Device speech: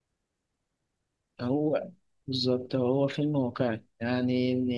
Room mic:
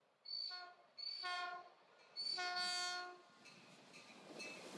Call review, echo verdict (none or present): none